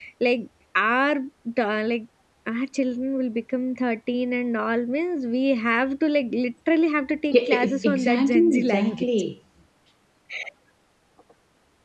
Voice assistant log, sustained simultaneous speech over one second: present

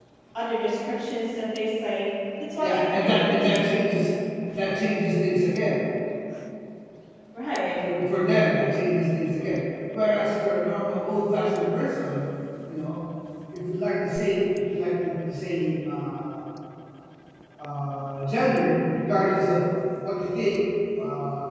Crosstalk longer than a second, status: present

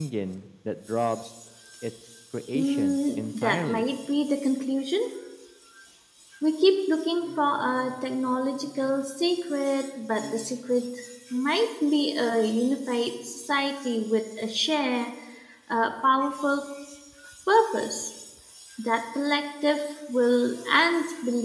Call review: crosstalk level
present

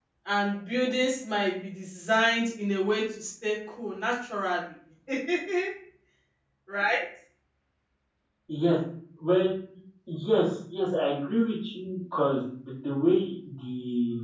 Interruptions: none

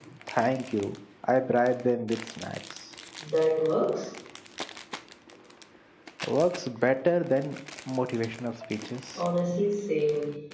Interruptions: none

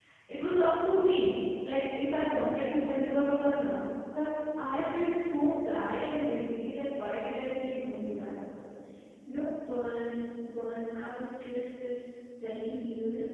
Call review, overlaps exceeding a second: none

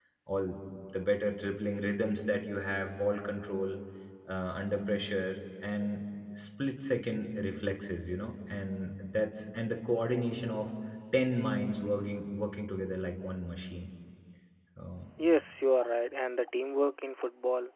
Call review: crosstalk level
none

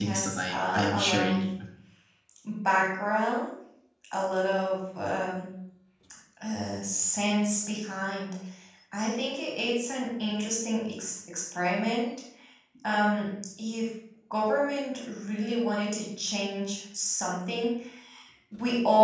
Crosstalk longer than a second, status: present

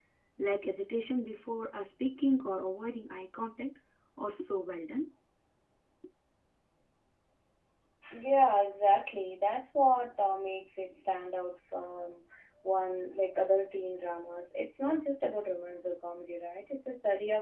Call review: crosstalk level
none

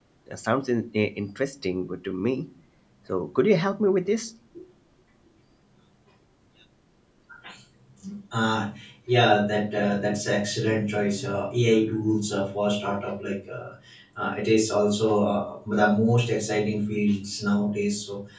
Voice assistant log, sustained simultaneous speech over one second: none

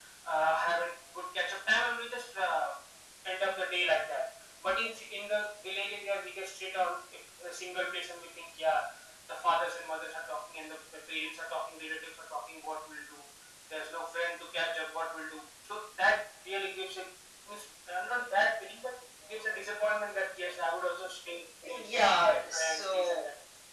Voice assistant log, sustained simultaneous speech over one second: present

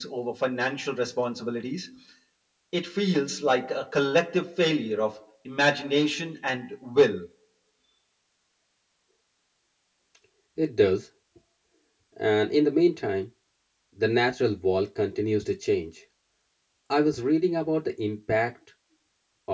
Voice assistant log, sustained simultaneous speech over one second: none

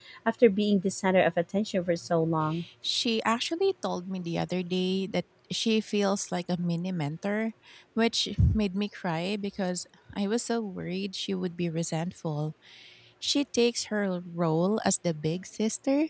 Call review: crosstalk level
none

